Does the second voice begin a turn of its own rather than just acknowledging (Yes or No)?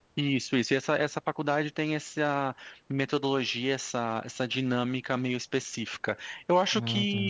No